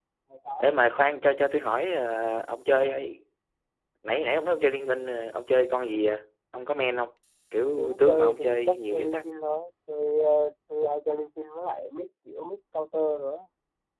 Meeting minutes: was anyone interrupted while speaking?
Yes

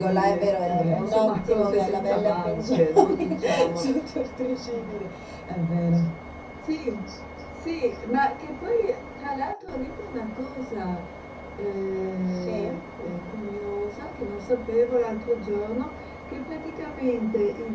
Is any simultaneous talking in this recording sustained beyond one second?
Yes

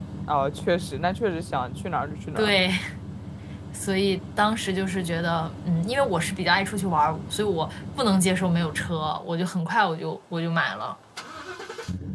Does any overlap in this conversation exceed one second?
No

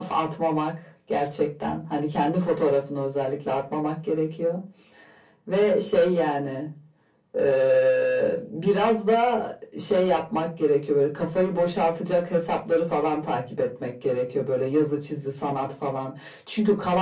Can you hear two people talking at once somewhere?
No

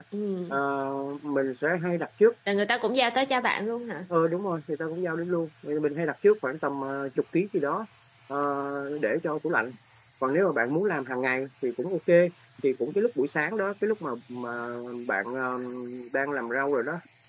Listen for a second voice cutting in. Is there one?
No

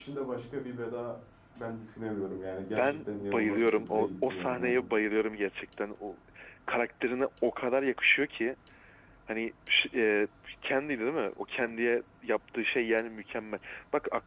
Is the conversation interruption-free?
No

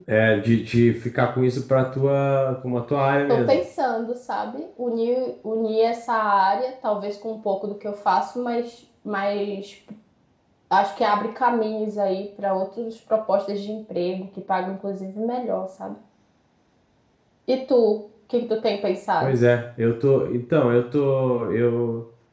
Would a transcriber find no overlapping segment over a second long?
Yes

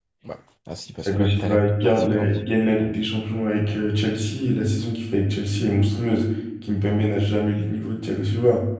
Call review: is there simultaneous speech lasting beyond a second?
Yes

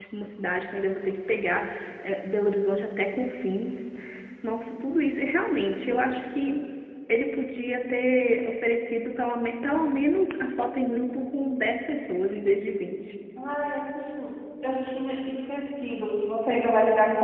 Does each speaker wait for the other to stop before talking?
Yes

